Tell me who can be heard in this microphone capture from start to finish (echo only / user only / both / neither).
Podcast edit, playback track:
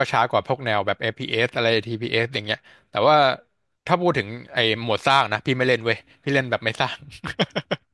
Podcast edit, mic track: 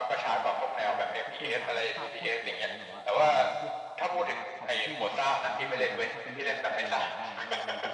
both